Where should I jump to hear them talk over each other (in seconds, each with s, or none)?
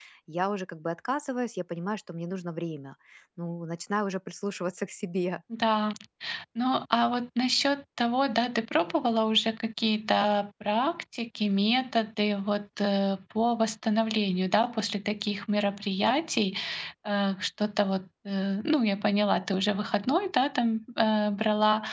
none